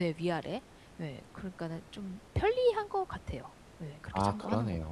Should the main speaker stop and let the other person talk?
Yes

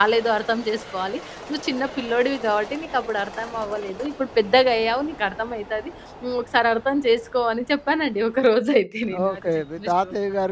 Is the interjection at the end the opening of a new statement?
Yes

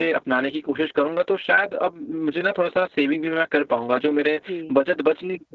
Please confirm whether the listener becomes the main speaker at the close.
No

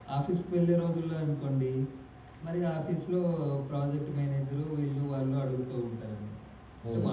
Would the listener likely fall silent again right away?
Yes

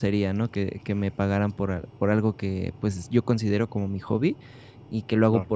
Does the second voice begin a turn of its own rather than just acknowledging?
No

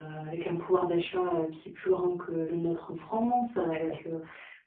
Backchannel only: Yes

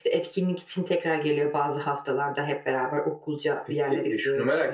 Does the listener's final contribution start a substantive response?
Yes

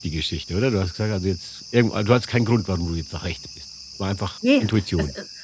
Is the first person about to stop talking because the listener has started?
Yes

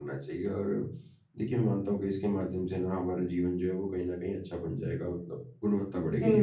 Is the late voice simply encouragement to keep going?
No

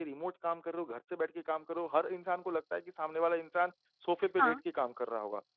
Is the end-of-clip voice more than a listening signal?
No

